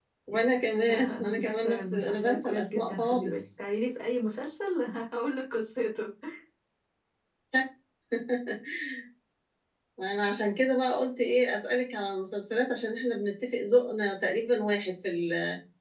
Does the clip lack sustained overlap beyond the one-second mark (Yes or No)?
No